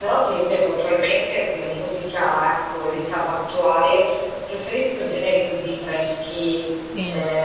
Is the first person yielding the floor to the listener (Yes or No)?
No